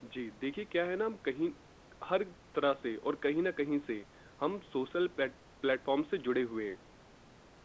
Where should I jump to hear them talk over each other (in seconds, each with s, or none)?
none